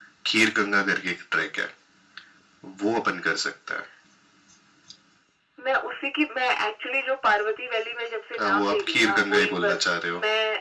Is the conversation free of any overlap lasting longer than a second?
No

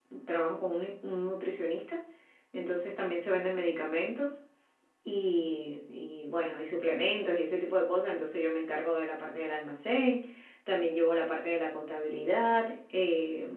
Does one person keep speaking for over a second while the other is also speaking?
No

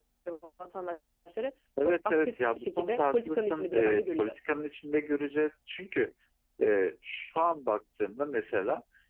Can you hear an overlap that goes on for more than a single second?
Yes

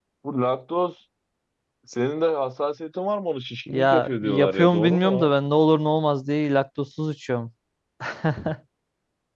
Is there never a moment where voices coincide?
No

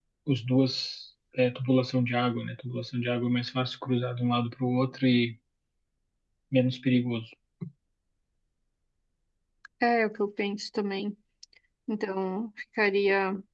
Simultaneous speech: No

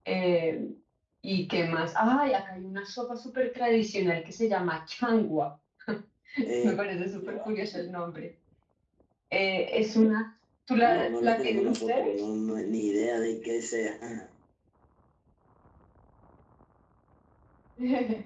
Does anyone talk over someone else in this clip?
Yes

